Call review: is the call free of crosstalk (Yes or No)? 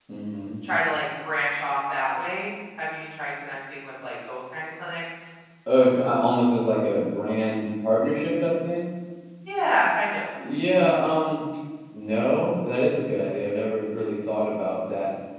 Yes